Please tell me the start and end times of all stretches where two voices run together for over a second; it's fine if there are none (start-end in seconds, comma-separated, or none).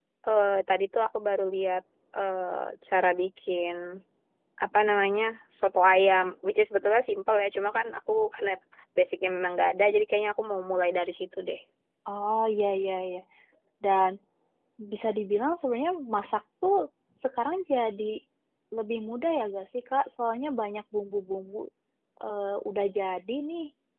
none